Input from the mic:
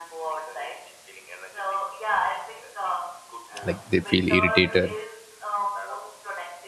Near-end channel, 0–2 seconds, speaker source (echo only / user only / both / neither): echo only